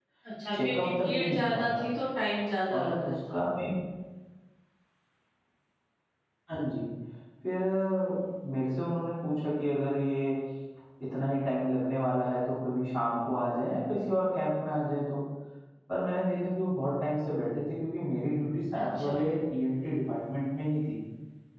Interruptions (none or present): present